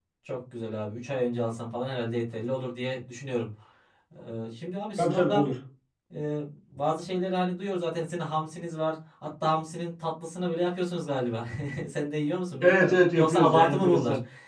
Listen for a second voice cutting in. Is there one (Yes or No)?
Yes